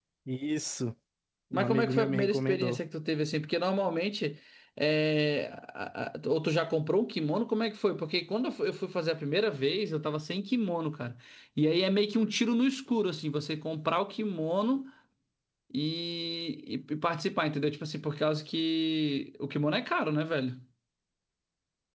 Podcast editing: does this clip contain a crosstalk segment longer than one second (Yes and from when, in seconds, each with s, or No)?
Yes, from 1.5 s